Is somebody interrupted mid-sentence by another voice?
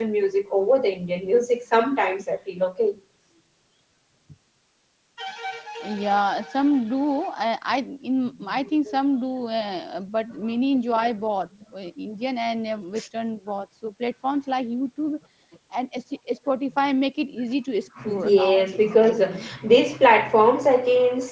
Yes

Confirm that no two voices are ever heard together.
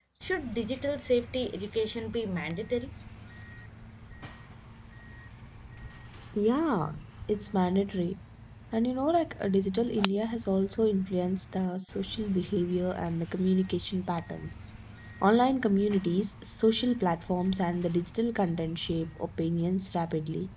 Yes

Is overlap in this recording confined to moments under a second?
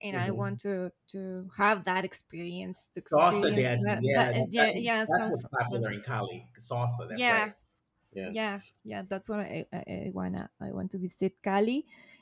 No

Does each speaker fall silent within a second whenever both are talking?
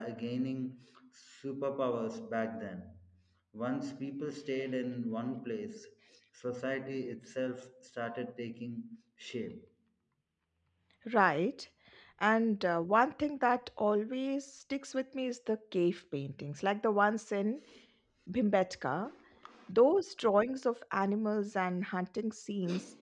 Yes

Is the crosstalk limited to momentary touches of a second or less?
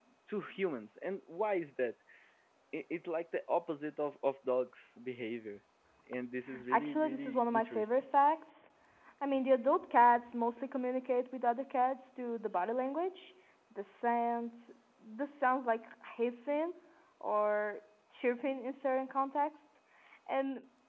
No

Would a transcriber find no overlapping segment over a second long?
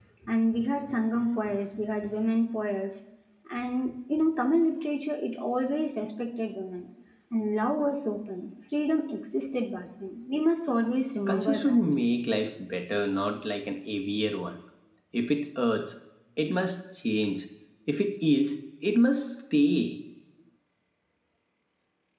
Yes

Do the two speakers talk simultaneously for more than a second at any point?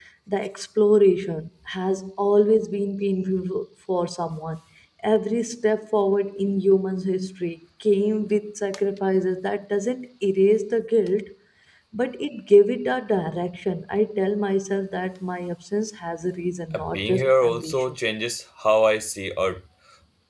Yes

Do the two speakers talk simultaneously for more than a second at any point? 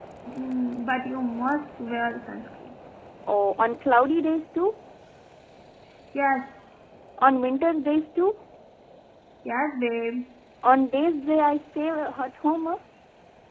No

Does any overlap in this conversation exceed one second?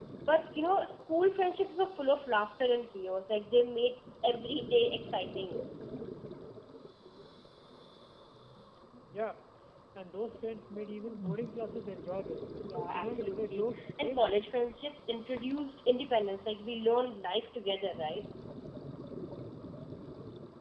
Yes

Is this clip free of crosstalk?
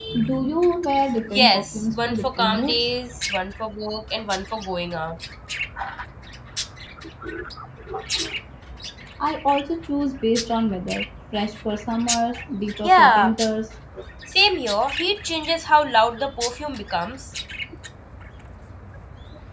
No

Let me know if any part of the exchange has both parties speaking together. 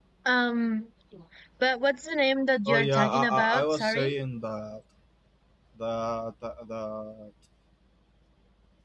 Yes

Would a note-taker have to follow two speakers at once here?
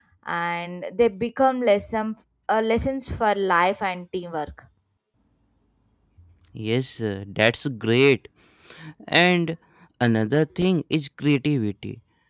No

